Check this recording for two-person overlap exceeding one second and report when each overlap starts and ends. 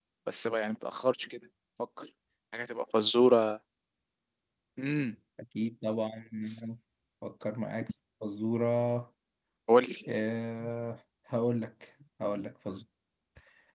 none

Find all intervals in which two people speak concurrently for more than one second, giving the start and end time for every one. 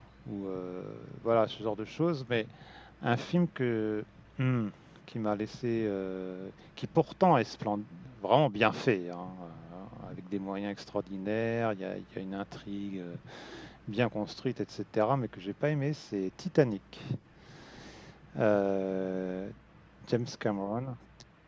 none

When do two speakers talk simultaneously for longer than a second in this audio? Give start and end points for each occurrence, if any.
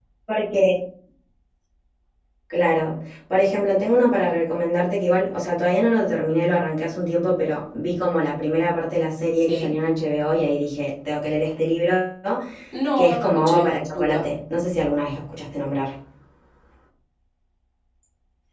13.0-14.2

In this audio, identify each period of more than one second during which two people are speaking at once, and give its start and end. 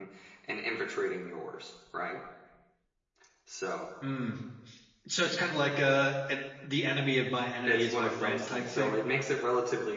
7.7-8.9

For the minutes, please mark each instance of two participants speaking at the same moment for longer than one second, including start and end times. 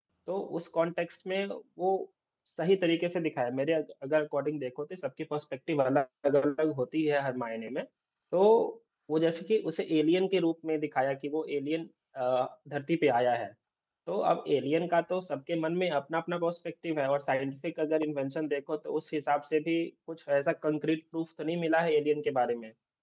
none

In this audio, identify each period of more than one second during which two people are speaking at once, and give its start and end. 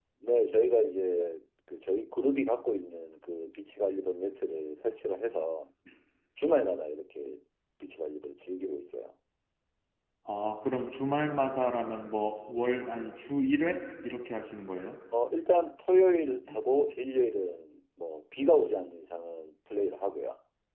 none

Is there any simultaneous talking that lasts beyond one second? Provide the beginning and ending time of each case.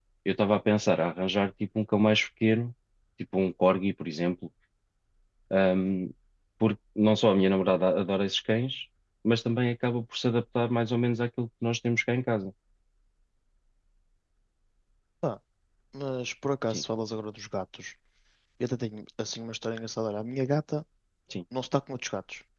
none

